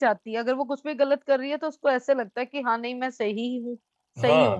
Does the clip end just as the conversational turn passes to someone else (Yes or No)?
Yes